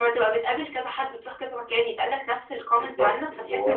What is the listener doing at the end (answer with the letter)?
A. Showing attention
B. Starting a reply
B